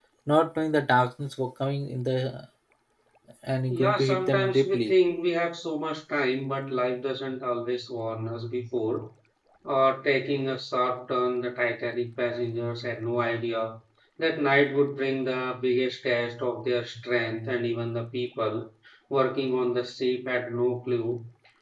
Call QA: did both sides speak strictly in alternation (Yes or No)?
No